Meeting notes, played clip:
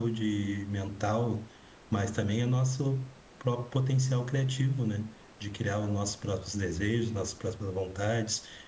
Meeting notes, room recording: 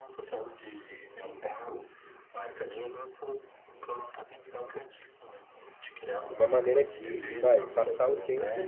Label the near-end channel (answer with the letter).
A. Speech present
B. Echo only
A